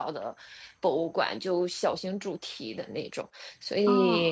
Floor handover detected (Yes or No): No